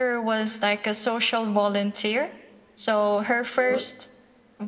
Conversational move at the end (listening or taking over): listening